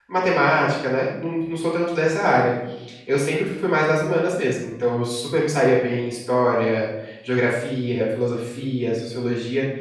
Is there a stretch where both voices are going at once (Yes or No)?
No